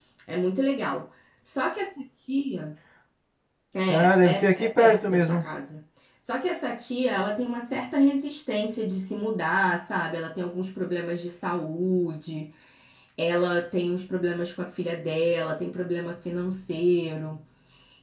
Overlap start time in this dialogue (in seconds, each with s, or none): 3.9 s